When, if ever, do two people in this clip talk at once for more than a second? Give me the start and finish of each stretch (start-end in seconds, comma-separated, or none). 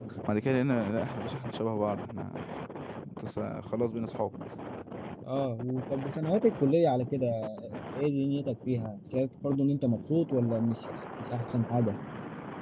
none